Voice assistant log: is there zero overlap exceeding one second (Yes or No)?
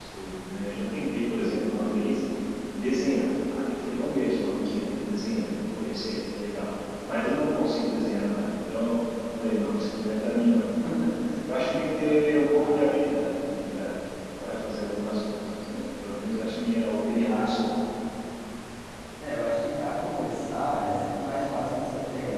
Yes